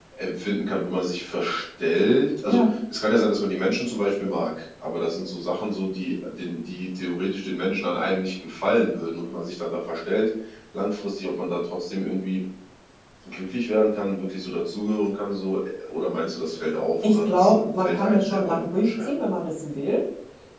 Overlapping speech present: Yes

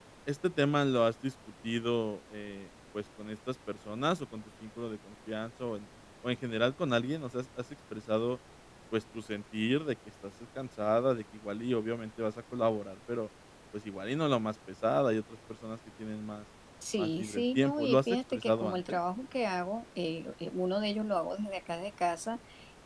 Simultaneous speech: Yes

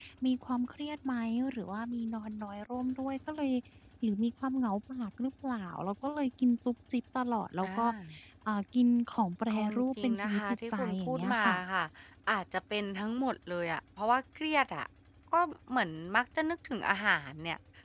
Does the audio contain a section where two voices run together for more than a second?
Yes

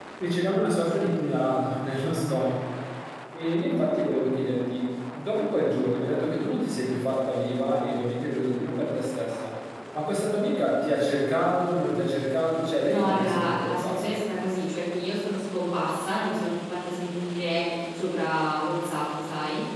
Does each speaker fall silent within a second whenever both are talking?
No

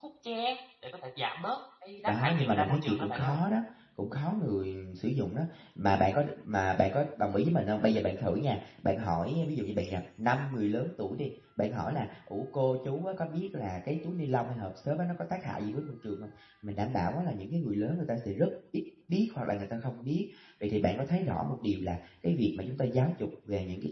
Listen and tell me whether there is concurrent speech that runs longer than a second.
Yes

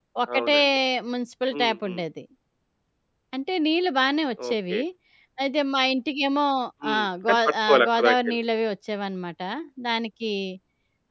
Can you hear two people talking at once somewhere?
Yes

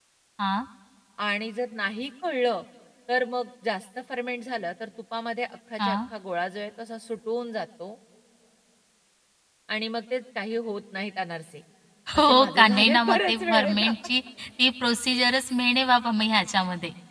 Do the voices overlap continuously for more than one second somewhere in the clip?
Yes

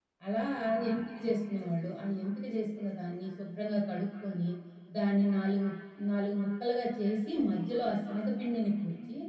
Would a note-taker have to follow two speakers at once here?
No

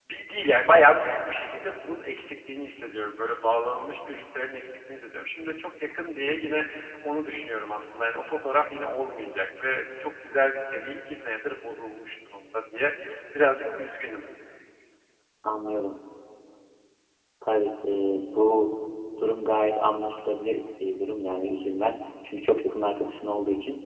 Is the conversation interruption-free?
Yes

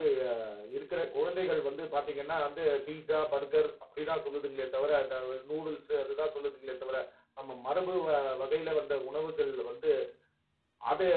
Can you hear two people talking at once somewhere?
No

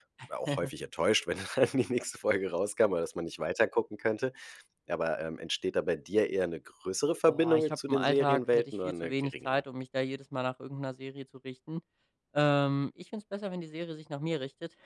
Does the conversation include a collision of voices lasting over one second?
Yes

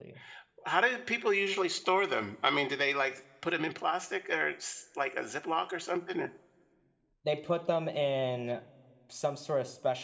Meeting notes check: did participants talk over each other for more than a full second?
No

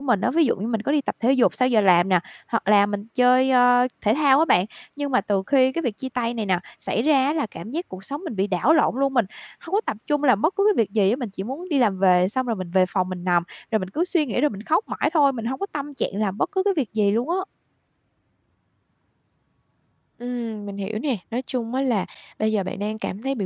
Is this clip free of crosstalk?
Yes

